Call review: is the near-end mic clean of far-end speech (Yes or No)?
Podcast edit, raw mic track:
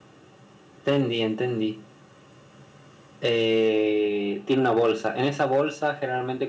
No